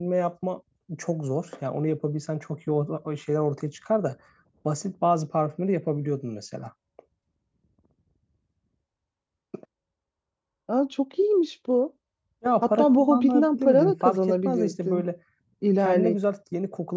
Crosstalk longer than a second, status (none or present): present